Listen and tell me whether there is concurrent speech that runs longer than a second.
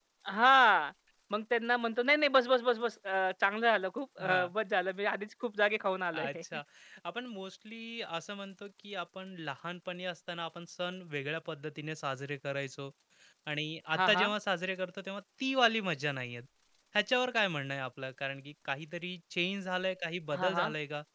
No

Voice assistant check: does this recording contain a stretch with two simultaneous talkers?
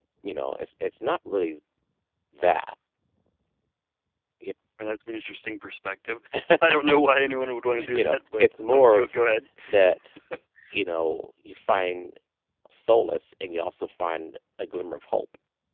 Yes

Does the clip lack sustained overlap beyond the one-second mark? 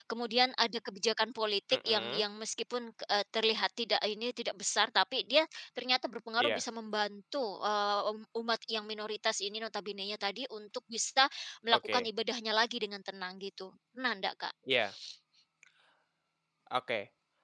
Yes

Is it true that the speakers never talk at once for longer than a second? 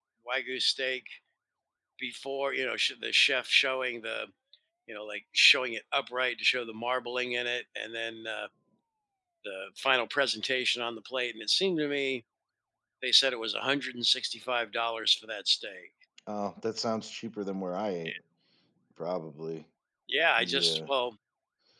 Yes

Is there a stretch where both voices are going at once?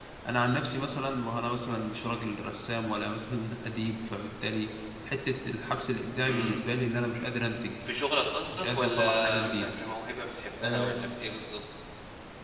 Yes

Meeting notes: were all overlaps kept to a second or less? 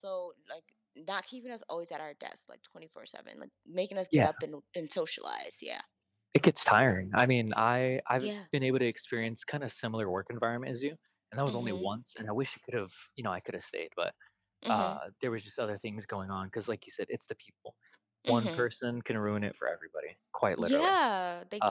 Yes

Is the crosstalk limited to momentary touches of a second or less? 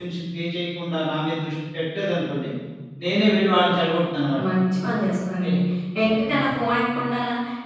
Yes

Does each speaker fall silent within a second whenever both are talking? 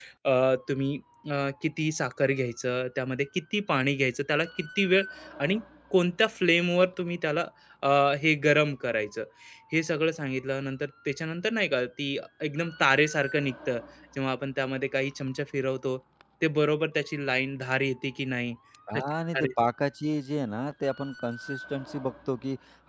Yes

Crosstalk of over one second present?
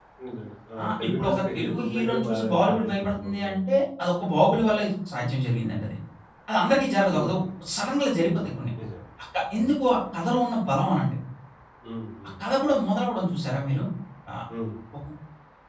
Yes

